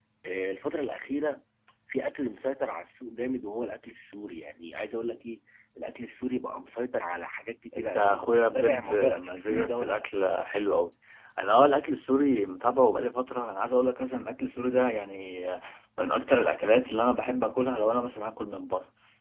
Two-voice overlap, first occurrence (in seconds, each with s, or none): 7.7 s